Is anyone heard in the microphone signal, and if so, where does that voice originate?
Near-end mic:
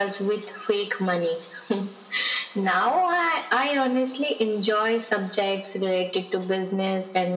echo only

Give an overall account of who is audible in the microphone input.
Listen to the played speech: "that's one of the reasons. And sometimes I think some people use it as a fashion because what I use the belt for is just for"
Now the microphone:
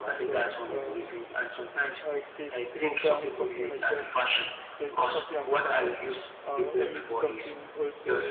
both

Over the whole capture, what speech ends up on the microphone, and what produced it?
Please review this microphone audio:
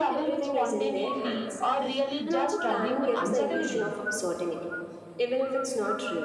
both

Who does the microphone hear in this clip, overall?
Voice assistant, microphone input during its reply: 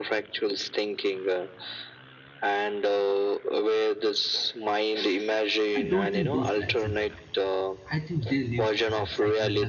both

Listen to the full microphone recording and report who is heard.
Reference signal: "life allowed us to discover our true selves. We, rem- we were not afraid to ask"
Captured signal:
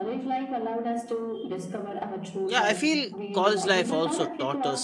both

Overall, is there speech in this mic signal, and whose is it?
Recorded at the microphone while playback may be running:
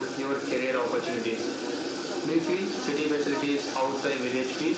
both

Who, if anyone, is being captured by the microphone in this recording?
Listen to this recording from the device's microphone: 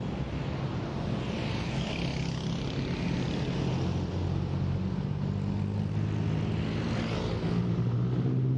neither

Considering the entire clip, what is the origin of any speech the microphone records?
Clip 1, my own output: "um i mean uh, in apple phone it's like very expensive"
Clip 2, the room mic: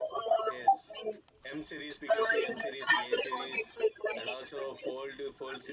both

